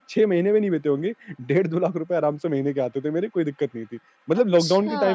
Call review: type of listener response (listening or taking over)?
listening